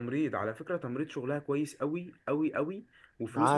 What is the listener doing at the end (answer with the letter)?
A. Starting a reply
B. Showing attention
B